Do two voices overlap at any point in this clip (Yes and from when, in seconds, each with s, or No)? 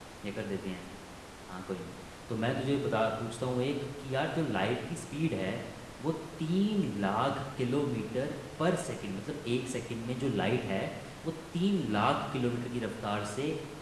No